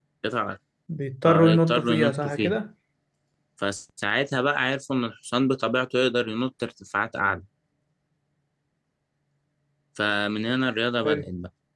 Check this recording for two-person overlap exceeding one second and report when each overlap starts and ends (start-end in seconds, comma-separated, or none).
1.2-2.5